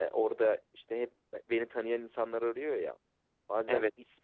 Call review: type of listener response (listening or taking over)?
listening